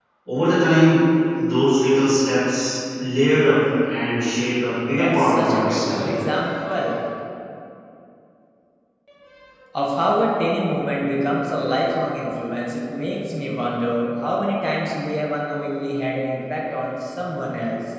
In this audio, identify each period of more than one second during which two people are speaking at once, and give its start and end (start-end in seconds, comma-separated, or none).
4.9-6.2